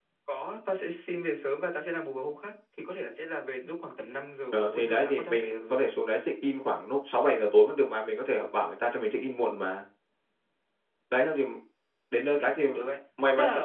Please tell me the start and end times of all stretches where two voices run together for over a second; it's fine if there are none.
4.5-5.9

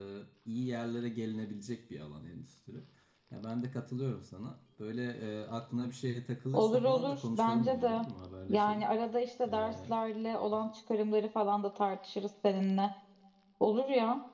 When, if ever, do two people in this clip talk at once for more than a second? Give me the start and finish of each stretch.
6.5-8.1

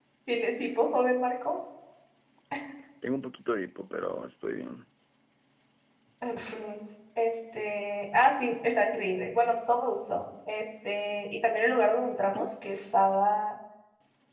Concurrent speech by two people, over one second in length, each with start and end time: none

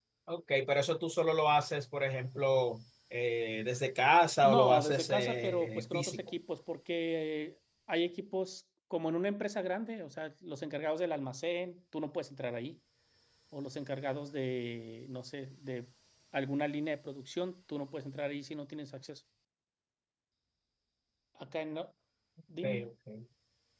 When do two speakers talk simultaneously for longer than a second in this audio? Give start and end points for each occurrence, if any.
4.4-6.2

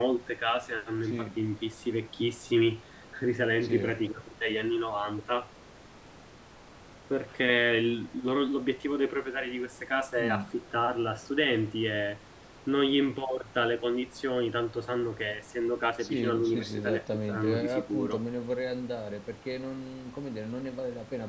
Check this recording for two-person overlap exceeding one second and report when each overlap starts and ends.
16.0-18.2

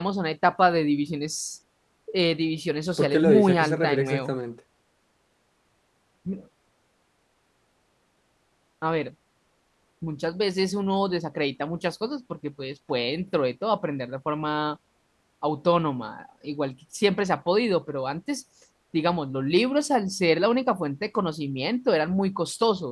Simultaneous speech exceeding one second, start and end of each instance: 3.0-4.3

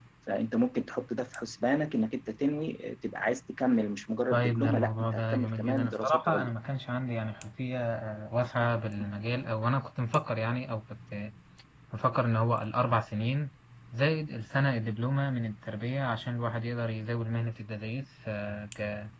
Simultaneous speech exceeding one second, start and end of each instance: 4.3-6.5

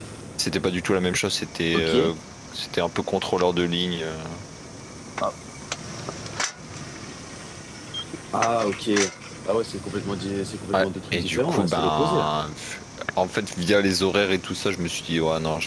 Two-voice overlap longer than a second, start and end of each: 10.7-12.3

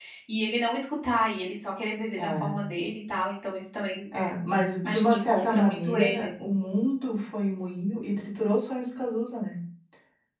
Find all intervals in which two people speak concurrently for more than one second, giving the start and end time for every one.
4.8-6.5

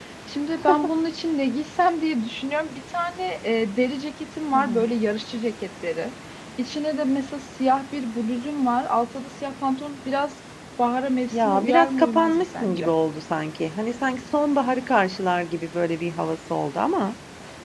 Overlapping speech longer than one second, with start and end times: 11.3-12.9

